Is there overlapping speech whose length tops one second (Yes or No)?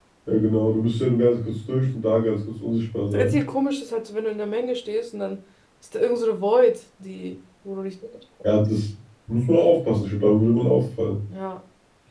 No